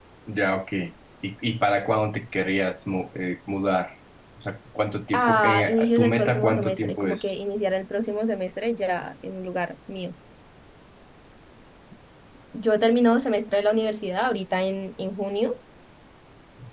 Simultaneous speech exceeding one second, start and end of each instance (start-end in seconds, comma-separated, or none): 5.1-7.3